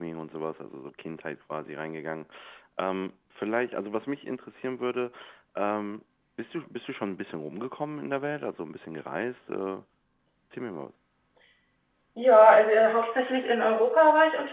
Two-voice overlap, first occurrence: none

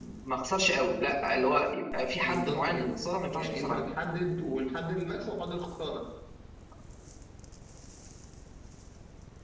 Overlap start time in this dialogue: 2.2 s

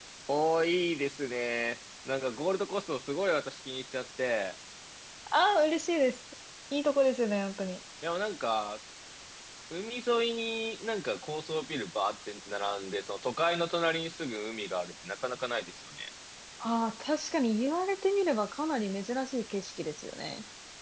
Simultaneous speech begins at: none

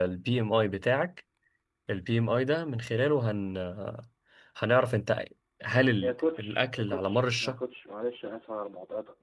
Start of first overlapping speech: 6.0 s

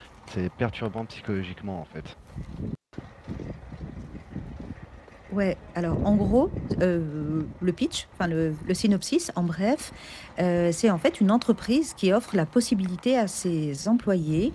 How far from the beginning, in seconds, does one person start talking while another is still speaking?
none

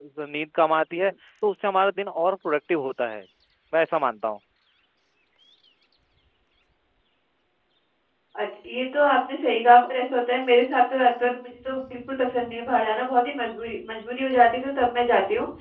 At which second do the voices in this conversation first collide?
none

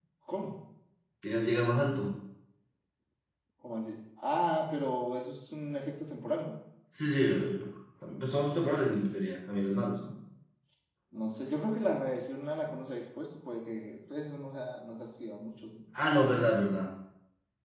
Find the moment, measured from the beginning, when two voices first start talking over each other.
none

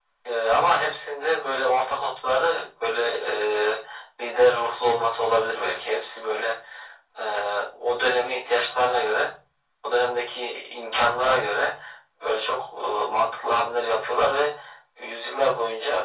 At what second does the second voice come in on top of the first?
none

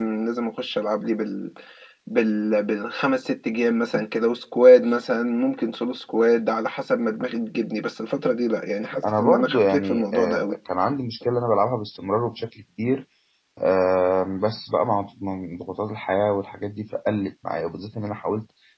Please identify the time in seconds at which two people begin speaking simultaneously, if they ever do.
9.0 s

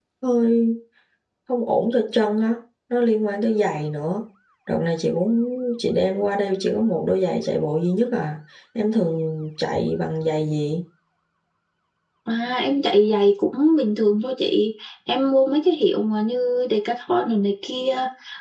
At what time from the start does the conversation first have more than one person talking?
none

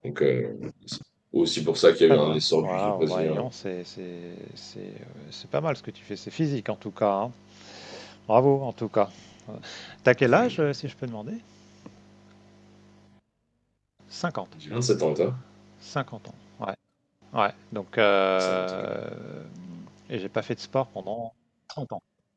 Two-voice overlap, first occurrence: 2.1 s

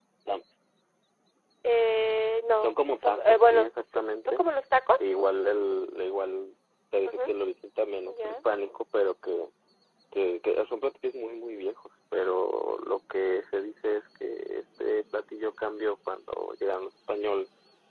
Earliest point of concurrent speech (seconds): 2.6 s

